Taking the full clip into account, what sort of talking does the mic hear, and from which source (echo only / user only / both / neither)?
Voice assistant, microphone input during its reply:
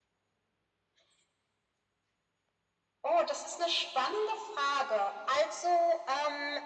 echo only